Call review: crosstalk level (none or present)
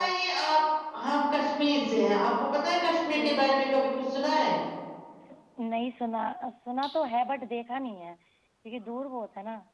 none